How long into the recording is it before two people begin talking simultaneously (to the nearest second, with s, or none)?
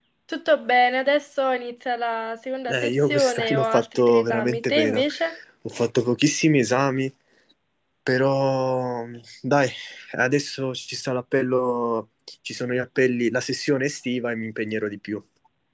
3 s